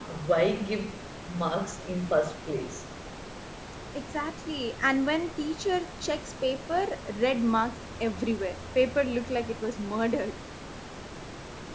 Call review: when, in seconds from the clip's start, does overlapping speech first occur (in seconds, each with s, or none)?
none